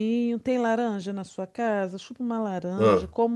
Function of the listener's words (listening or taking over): listening